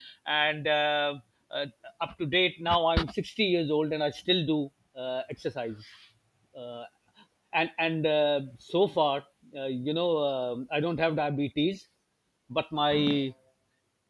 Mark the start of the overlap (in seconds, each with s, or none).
none